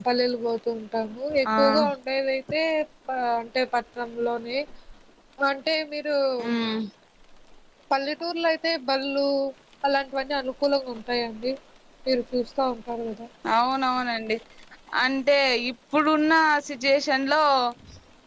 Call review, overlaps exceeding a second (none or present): none